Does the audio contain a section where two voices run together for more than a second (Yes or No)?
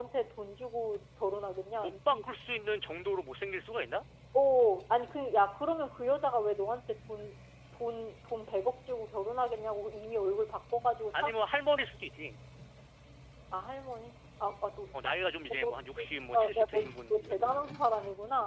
Yes